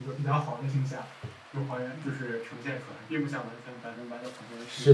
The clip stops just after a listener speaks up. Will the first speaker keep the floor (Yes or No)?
No